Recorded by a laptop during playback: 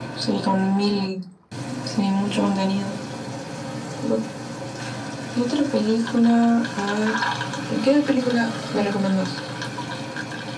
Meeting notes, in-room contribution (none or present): none